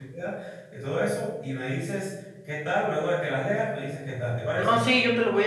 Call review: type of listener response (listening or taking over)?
taking over